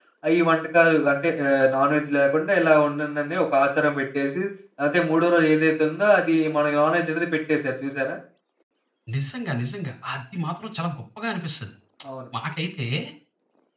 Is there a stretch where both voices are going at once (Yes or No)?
No